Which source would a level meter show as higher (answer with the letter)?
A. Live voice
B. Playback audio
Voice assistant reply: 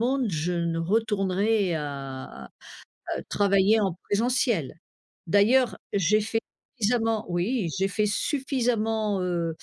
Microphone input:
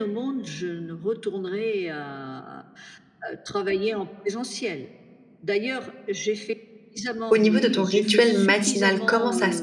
A